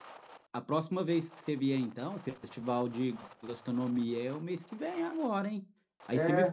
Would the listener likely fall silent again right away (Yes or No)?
Yes